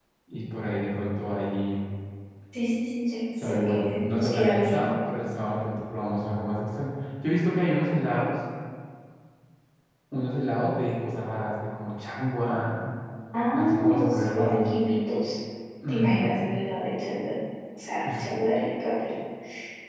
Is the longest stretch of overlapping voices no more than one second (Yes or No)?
No